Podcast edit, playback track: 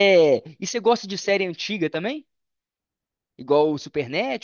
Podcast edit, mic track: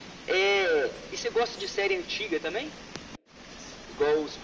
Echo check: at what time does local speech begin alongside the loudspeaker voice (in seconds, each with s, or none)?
none